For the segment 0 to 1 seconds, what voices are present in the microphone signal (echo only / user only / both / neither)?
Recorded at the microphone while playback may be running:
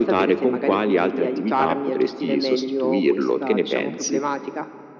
echo only